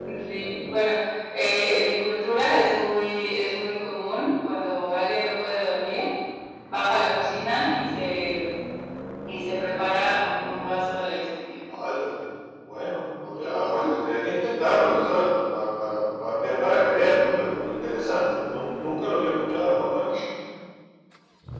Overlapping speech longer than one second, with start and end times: none

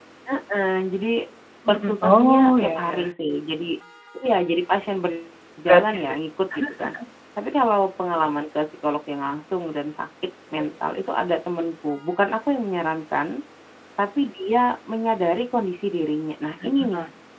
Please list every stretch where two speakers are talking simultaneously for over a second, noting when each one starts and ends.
1.7-3.1

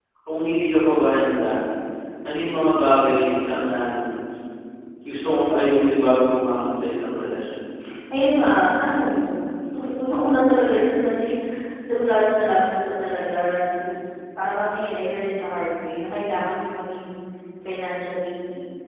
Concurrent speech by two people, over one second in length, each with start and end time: none

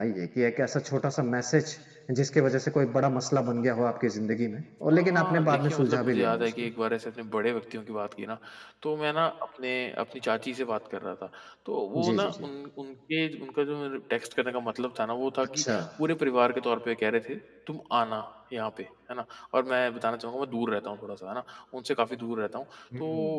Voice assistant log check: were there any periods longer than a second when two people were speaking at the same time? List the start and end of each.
4.9-6.5

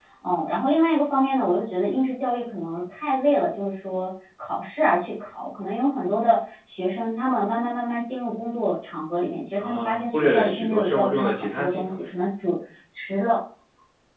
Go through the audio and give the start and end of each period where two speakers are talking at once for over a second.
9.6-12.0

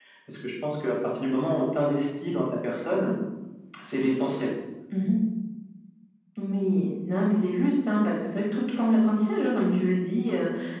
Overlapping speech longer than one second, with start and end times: none

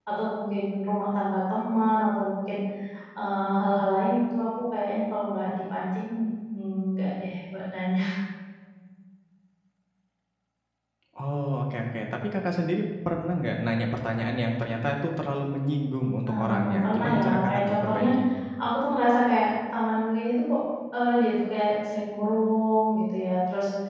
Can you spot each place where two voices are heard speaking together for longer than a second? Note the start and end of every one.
16.3-18.1

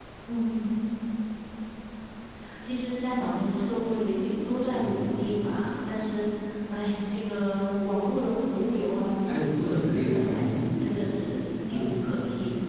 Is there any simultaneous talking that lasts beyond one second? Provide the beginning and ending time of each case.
9.2-10.5

